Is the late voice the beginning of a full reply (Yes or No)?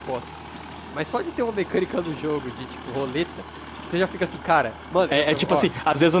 Yes